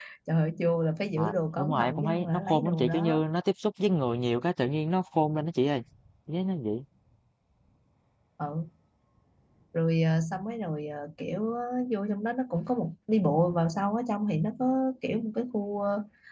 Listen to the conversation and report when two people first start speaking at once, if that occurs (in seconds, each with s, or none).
1.2 s